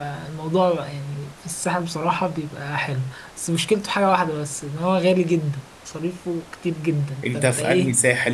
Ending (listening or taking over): taking over